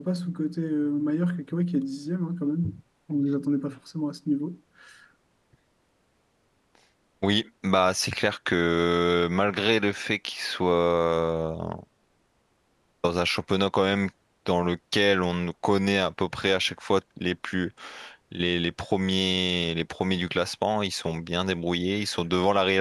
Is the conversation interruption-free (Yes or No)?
Yes